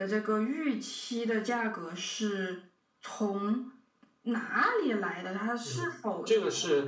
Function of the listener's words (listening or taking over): taking over